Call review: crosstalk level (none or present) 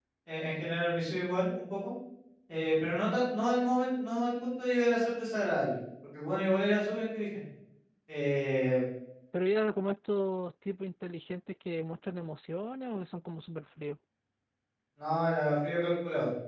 none